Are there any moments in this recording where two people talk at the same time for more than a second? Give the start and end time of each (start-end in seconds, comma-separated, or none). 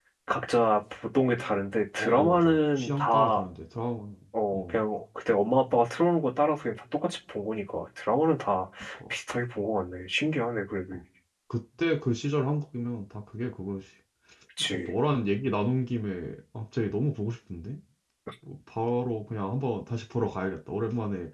2.0-3.5